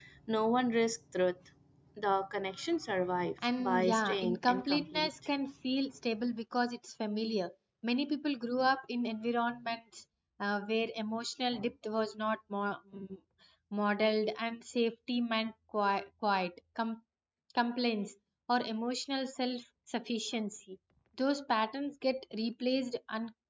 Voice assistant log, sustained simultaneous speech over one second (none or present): present